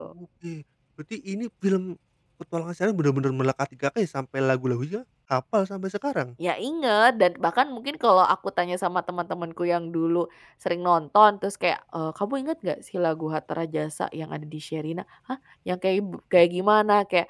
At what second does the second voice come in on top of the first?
none

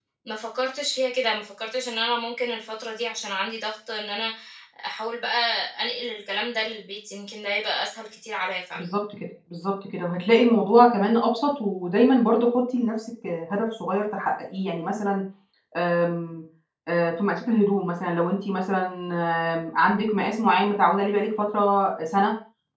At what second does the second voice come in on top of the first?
none

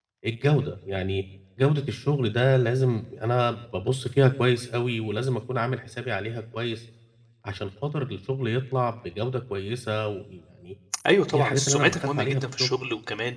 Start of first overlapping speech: 11 s

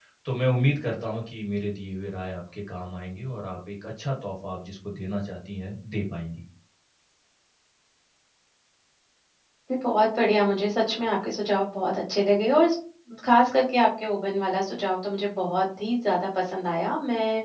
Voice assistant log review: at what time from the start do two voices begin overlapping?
none

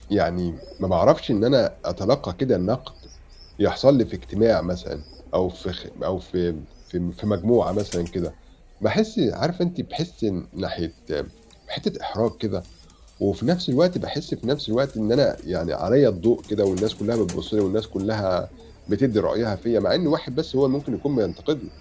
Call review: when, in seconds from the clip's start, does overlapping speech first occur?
none

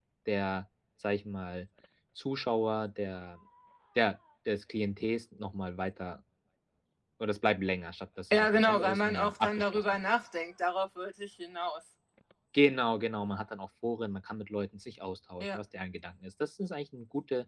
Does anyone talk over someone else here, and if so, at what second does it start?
8 s

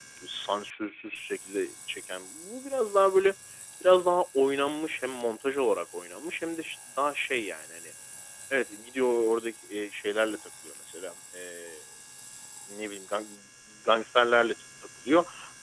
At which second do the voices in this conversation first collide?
none

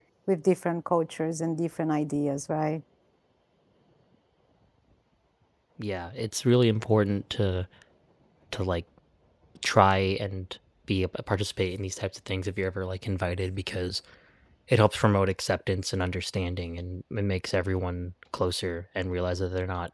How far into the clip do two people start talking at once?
none

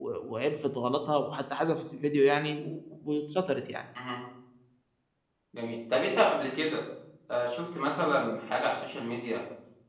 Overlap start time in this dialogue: none

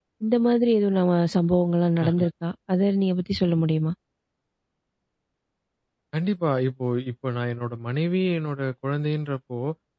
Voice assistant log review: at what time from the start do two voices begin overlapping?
none

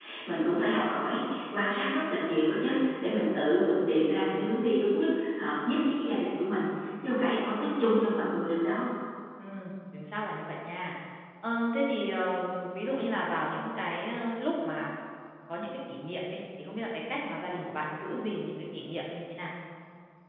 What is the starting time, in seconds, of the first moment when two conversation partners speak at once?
none

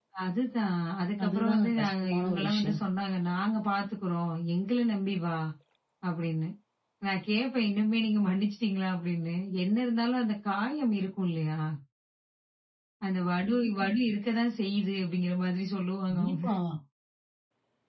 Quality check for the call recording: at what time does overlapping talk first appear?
1 s

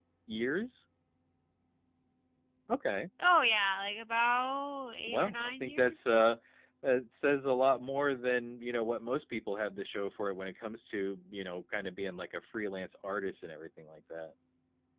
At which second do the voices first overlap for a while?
5 s

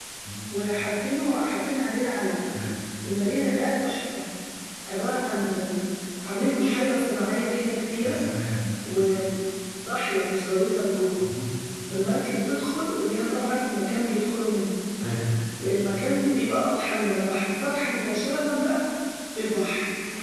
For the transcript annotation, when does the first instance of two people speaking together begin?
none

